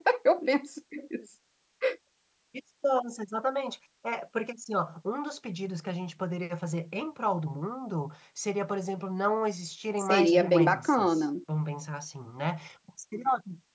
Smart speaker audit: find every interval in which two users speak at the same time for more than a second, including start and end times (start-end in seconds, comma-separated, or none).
10.0-11.2